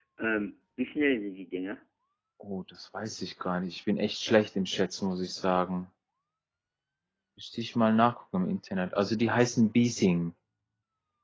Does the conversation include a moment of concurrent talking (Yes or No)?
No